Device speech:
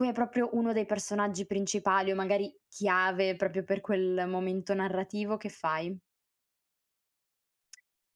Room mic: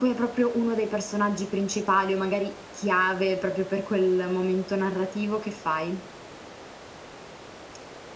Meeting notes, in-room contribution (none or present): none